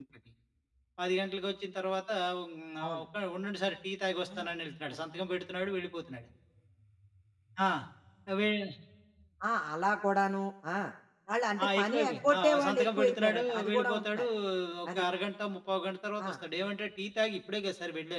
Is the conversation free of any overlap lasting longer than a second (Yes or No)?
No